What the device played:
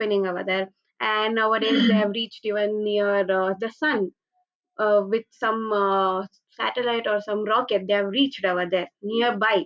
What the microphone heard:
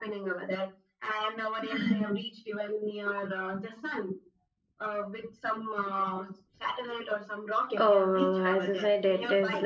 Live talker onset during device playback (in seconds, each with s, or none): 7.8 s